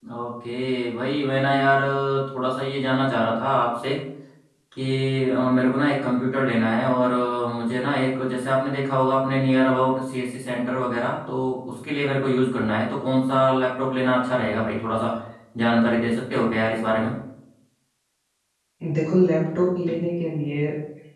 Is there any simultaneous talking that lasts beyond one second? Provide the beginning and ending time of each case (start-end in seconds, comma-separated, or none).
none